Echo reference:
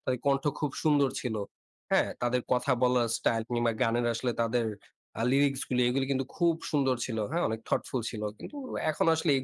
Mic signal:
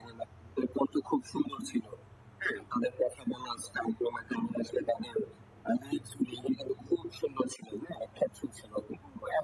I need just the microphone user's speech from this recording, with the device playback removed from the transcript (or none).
none